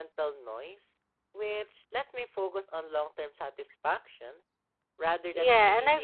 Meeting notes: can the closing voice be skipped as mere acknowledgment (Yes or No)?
No